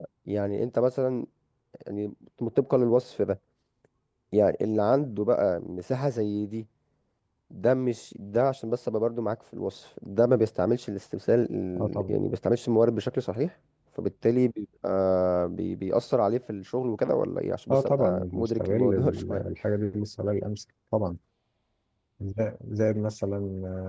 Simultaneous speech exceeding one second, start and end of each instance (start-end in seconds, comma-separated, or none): 17.7-19.4